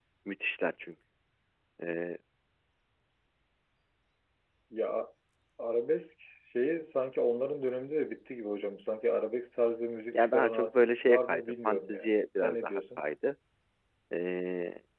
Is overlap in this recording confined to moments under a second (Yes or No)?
No